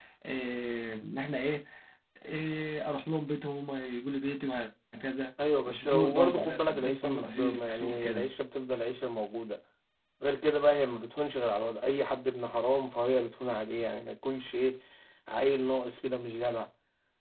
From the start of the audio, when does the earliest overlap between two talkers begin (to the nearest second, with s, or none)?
6 s